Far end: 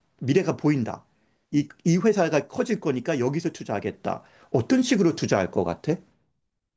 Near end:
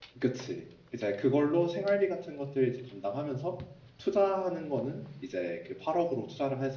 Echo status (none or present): none